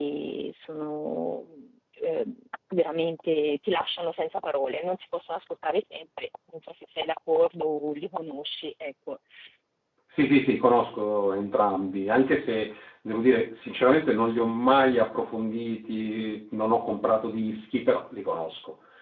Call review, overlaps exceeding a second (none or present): none